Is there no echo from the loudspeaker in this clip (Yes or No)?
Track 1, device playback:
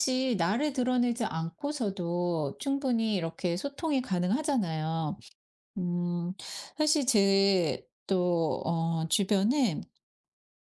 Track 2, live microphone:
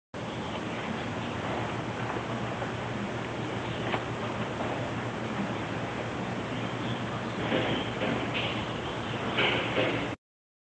Yes